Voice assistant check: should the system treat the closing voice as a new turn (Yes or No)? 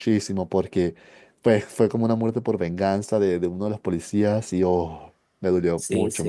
Yes